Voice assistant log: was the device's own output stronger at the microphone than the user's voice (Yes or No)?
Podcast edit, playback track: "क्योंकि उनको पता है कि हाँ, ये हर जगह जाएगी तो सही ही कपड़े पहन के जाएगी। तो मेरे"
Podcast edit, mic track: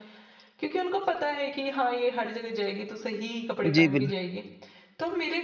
No